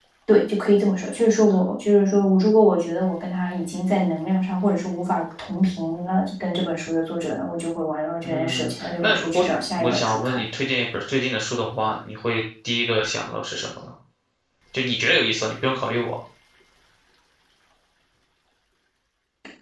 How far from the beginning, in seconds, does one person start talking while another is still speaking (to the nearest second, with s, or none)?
8 s